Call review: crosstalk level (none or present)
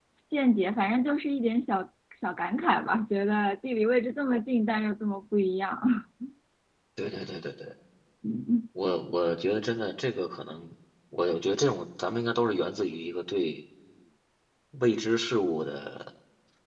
none